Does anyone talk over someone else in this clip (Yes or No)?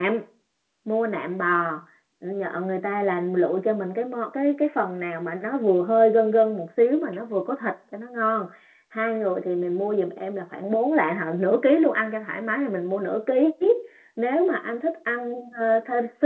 No